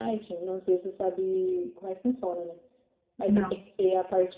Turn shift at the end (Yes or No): No